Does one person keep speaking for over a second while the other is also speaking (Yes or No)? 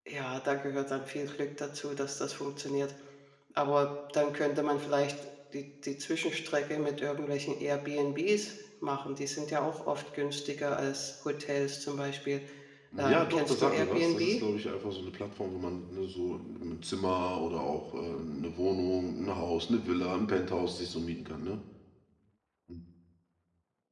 Yes